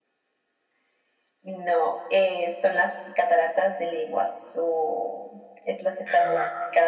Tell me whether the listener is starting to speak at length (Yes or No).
No